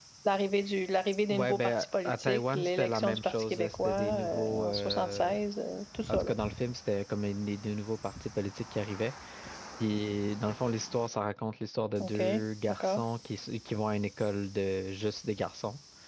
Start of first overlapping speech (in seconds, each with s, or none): 1.3 s